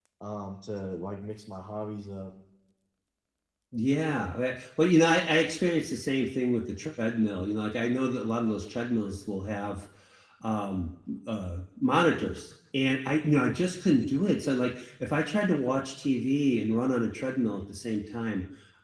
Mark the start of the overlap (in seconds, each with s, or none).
none